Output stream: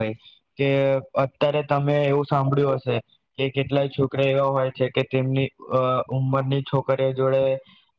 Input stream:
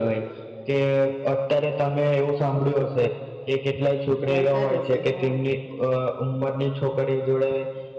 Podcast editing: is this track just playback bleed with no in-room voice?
No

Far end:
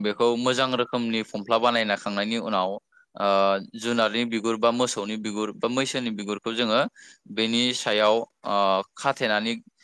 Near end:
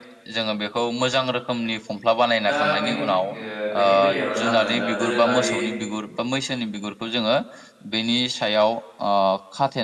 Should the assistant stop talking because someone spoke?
Yes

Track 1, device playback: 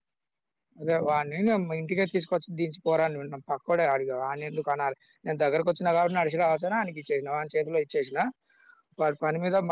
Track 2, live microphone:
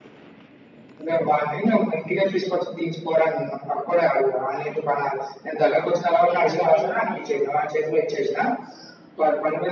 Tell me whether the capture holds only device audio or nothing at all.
No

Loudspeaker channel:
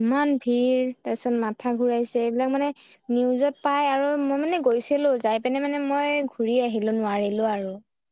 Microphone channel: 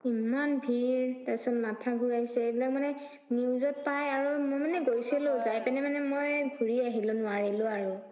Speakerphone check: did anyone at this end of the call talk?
Yes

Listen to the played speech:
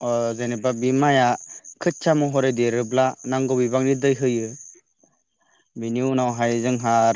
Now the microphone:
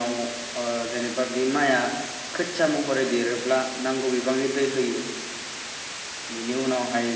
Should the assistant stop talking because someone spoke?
No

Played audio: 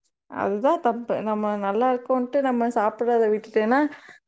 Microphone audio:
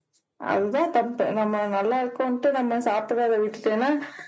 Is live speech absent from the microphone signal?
Yes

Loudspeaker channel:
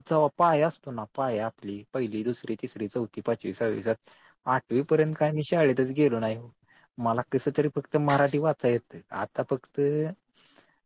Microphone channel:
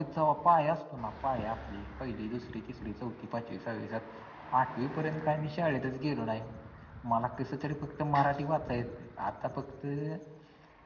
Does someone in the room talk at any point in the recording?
No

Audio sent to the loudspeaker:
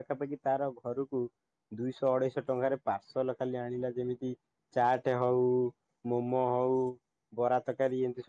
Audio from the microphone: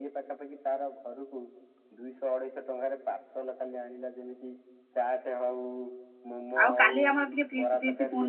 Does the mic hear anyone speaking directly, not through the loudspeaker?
Yes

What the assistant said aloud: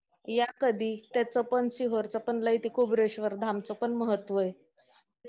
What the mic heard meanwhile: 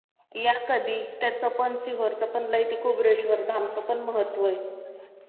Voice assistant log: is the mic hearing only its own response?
Yes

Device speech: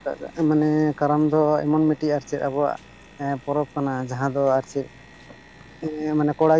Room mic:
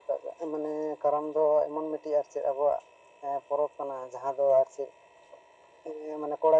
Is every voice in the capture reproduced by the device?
Yes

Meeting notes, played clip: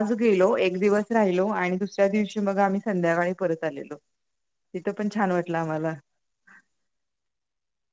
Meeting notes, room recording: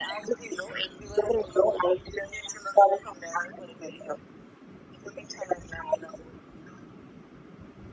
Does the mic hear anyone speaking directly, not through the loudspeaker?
No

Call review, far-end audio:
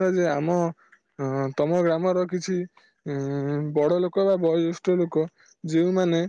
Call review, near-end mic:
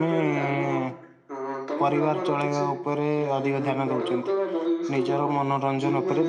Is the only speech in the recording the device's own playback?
No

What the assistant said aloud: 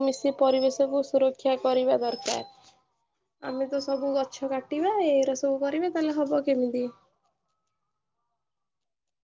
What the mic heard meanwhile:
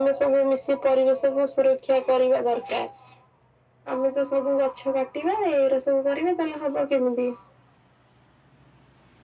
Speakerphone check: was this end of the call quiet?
Yes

